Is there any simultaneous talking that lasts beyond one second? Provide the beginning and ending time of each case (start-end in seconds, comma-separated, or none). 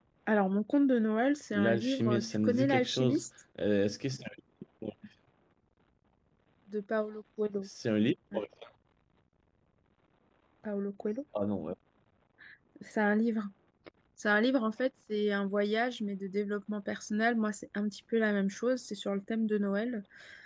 1.5-3.2